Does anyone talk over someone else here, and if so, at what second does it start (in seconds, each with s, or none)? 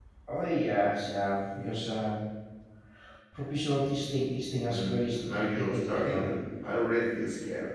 4.6 s